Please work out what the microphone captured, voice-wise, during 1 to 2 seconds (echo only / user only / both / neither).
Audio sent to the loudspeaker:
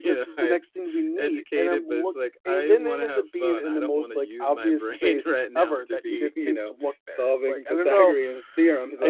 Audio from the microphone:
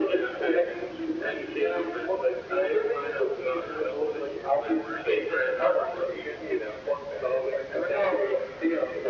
echo only